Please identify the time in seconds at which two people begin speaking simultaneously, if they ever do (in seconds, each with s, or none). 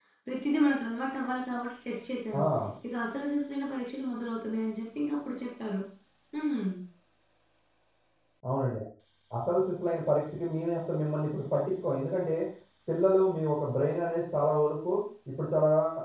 none